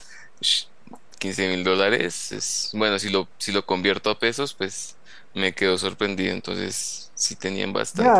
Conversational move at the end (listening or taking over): taking over